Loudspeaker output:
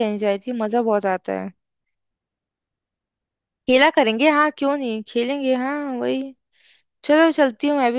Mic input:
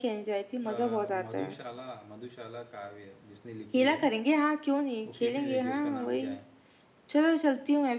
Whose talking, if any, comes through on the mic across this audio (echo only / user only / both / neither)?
both